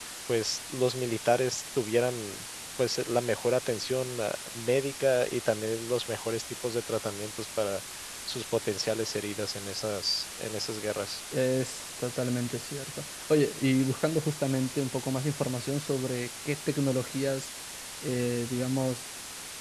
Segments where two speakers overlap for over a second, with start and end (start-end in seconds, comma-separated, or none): none